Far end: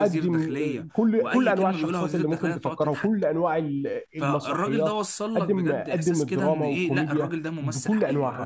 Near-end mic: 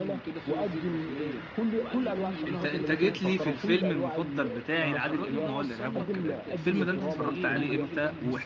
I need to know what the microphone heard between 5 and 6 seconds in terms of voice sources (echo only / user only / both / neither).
both